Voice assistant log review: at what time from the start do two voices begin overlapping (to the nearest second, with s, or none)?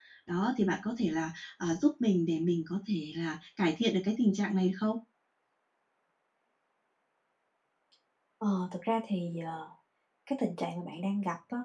none